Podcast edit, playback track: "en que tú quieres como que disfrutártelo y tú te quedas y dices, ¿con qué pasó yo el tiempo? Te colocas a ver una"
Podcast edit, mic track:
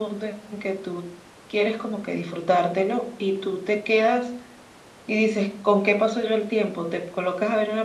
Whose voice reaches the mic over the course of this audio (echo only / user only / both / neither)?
echo only